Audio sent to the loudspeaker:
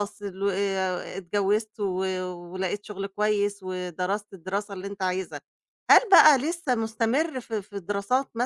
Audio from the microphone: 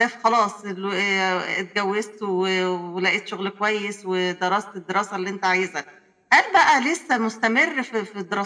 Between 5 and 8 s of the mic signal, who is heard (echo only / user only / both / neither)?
echo only